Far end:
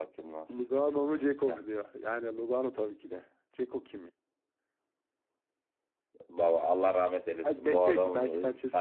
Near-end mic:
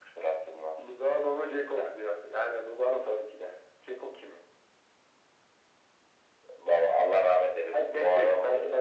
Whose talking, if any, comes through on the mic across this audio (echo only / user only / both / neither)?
echo only